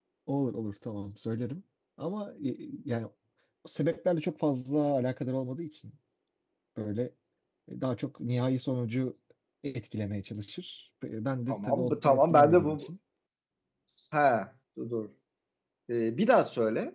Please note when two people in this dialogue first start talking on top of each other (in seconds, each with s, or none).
11.5 s